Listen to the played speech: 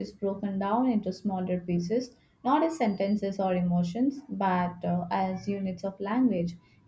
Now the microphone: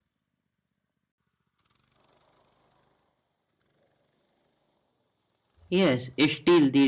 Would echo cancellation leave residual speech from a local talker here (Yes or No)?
Yes